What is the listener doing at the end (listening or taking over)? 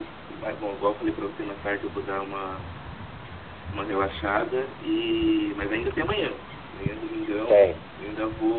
listening